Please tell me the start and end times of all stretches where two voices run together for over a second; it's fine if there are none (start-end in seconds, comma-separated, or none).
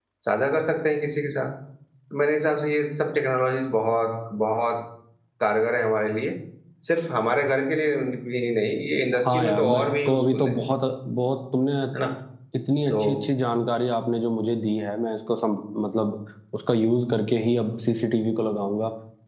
9.2-10.5